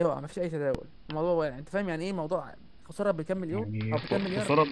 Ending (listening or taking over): taking over